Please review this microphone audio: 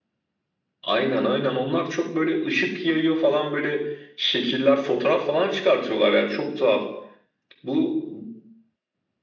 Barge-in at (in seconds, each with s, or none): none